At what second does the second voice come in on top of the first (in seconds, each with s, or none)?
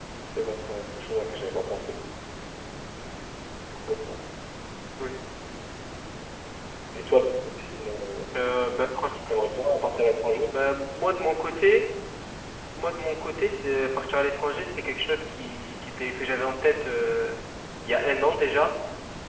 none